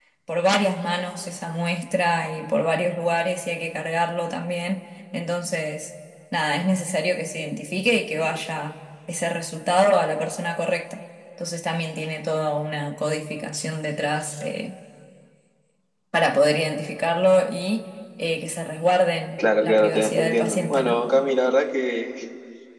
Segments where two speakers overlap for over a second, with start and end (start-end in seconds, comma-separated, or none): 19.6-20.9